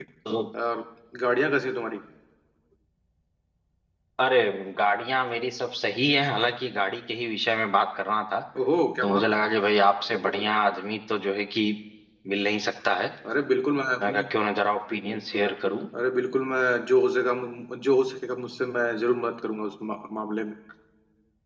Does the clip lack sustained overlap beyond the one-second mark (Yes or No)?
Yes